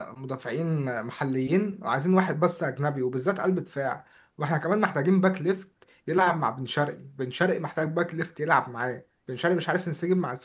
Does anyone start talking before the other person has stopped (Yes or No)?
No